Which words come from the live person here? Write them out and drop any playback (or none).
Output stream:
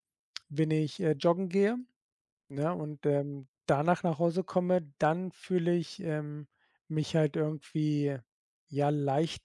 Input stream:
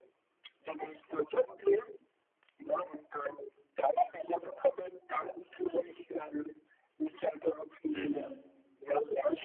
Hm, ja.